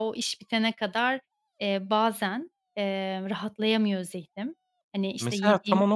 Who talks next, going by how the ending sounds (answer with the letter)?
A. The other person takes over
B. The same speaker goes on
A